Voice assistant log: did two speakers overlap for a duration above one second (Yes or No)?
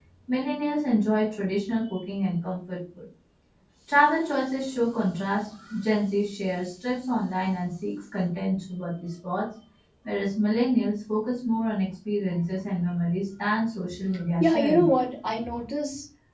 No